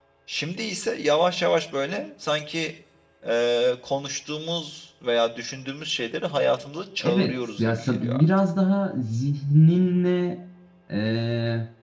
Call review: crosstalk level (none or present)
present